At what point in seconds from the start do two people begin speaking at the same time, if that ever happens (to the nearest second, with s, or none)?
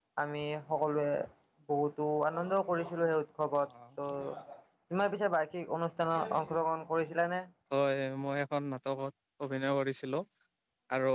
none